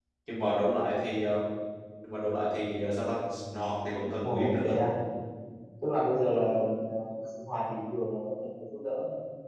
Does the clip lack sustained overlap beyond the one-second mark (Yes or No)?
Yes